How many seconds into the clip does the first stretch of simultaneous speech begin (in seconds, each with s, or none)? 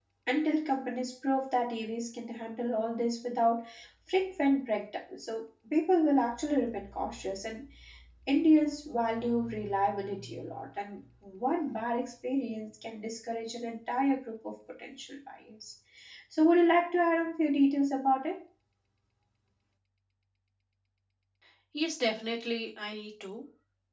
none